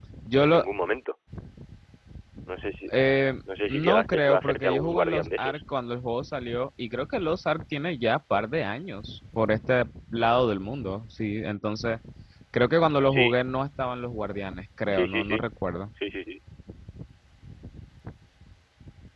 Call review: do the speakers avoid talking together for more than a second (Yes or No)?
No